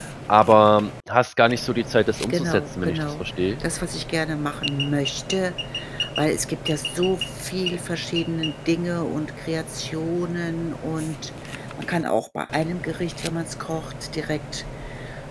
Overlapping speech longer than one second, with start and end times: 2.3-3.6

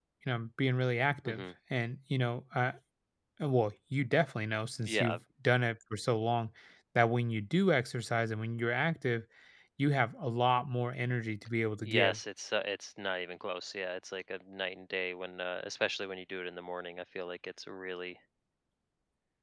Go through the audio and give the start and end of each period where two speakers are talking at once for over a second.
none

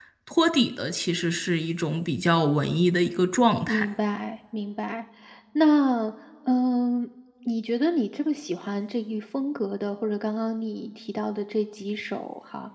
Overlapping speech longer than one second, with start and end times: none

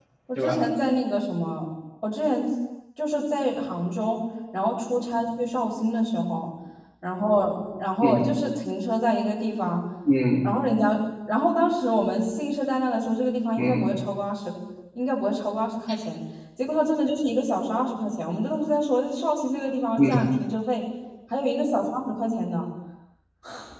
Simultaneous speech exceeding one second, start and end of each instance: none

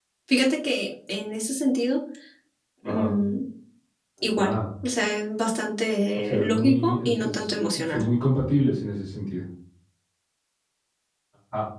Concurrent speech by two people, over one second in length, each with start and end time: 6.2-8.1

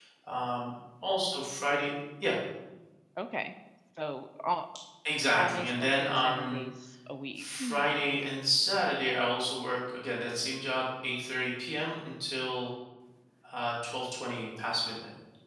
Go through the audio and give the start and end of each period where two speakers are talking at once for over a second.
5.4-6.6

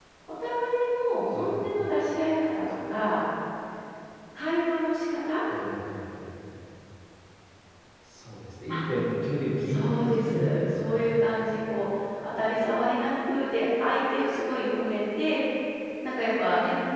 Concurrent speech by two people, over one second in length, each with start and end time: 9.7-11.1

